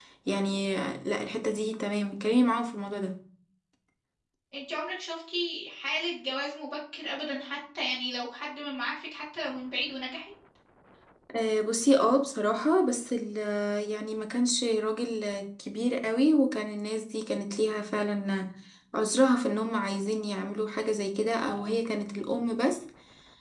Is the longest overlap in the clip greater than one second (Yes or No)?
No